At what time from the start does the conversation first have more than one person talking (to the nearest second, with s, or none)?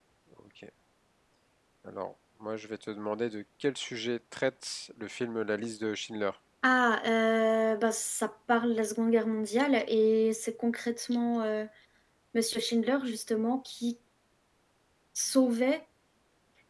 none